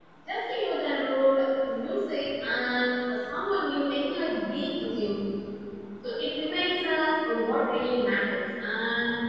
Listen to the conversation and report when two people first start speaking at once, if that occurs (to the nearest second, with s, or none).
none